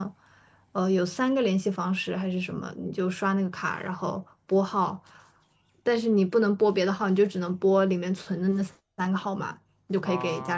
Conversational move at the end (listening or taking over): listening